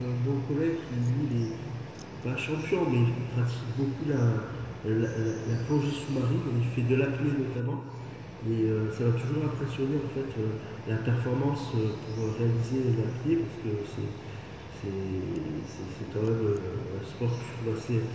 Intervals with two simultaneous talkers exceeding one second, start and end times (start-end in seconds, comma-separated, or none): none